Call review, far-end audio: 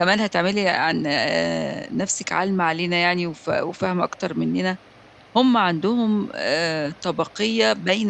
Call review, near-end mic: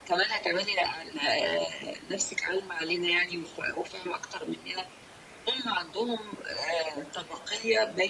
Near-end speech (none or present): none